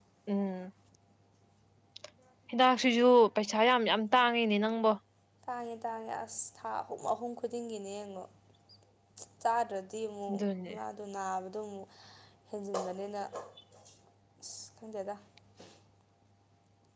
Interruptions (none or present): none